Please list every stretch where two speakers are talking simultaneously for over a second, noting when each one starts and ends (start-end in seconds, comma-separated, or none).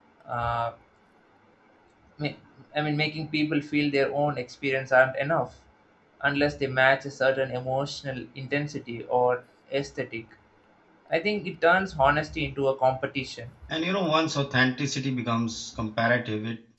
none